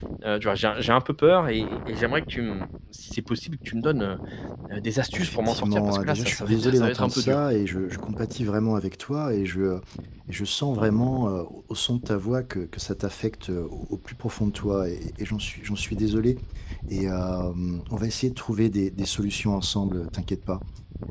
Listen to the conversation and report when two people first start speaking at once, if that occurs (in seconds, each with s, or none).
5.2 s